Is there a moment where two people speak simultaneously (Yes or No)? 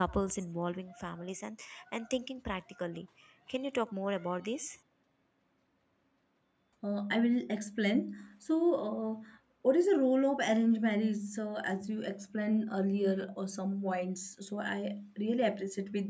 No